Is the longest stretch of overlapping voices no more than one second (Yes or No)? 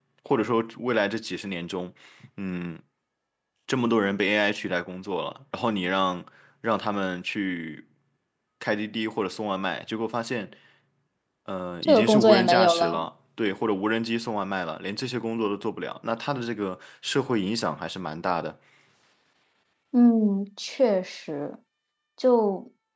No